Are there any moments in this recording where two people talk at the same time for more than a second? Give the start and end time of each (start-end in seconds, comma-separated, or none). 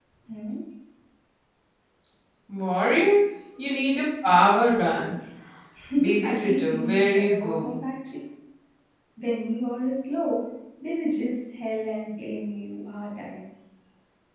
6.2-7.7